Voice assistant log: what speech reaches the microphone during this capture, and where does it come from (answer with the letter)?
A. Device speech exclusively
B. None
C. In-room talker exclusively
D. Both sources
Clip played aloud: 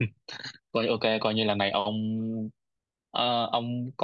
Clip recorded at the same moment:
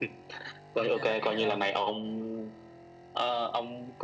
D